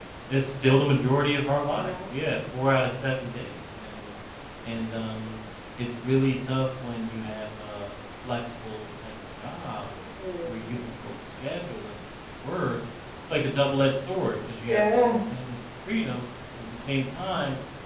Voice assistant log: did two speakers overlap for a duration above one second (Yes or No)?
No